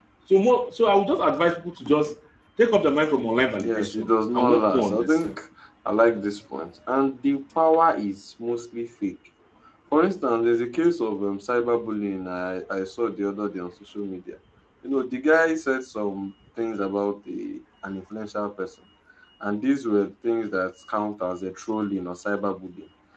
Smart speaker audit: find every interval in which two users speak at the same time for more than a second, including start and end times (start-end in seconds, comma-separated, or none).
3.6-5.3